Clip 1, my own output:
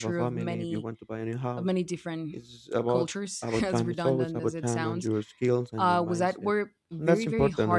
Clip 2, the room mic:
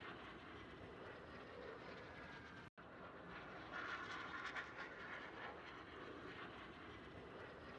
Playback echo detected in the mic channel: No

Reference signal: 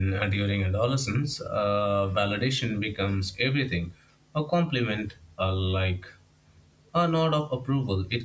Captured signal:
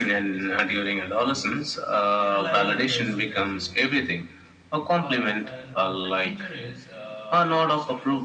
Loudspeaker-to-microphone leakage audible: Yes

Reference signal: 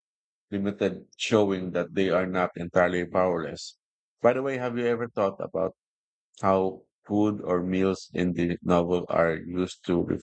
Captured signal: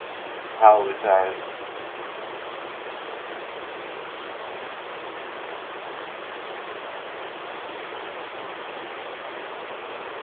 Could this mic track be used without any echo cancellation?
Yes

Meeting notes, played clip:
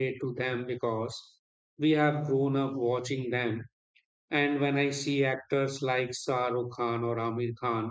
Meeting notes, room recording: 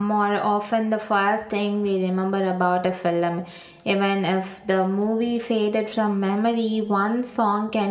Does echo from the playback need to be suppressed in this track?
No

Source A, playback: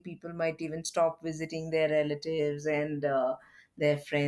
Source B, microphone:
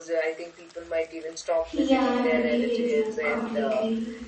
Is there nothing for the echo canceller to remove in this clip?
No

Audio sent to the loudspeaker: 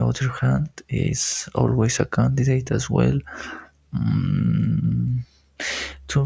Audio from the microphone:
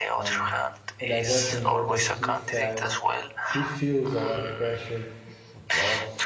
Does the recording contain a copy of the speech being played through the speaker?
Yes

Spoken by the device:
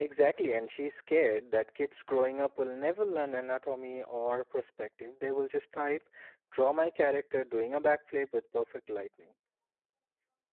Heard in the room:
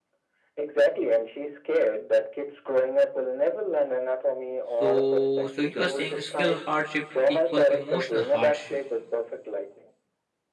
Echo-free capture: No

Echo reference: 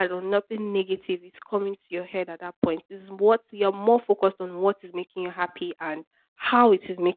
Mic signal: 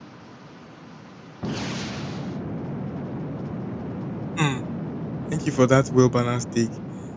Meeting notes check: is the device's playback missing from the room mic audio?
Yes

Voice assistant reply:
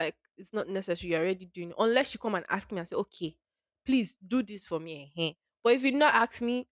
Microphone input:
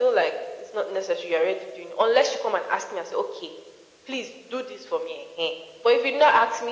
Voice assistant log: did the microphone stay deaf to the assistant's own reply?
No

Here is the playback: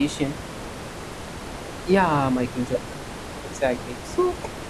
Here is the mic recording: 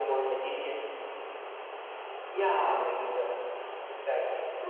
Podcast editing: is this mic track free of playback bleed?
No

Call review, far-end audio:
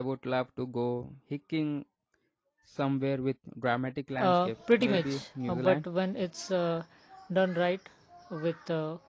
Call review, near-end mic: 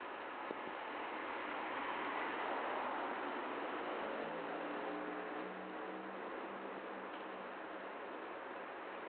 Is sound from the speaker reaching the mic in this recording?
No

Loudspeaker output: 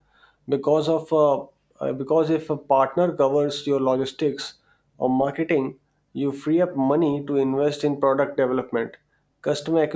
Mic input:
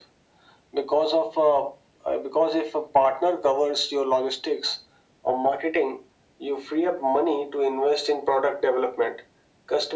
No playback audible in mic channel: No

